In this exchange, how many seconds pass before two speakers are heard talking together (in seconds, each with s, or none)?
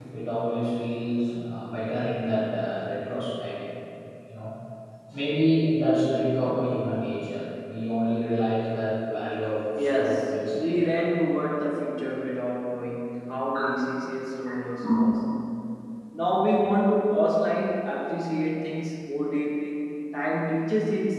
9.8 s